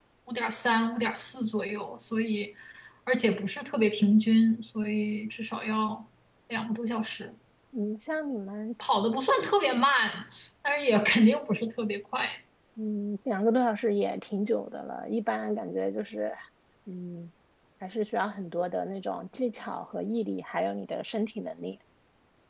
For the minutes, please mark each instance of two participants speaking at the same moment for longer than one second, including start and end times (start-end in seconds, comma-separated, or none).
none